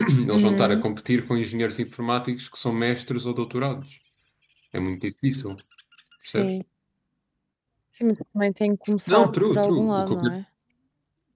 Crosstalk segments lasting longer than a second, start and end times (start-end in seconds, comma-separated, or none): 9.1-10.4